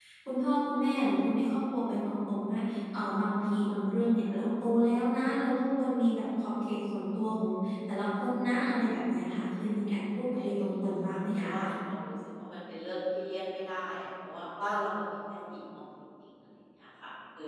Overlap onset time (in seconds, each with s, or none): 10.0 s